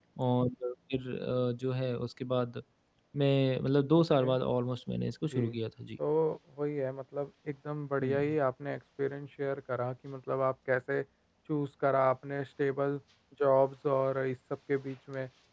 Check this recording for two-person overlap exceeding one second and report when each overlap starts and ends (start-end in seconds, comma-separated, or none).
none